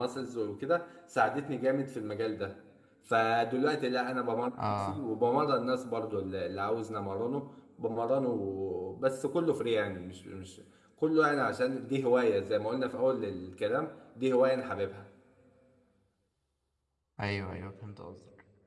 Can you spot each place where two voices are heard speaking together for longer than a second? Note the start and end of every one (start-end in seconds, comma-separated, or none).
none